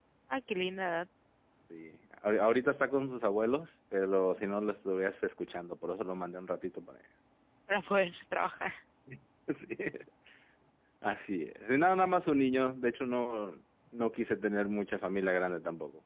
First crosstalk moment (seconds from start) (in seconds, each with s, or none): none